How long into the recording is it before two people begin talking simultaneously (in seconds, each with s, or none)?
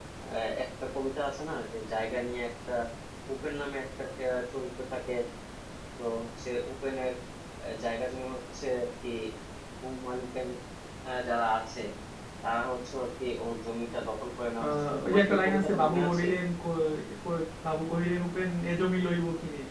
14.6 s